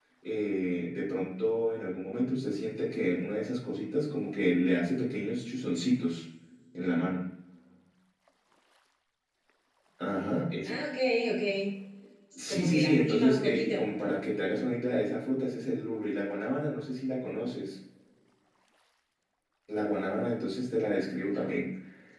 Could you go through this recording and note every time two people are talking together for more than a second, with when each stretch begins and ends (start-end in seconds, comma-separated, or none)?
12.5-13.8